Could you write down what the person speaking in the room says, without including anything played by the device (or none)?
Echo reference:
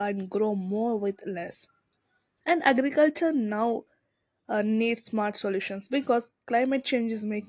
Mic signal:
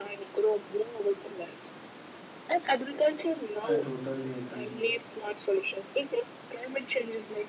I totally agree.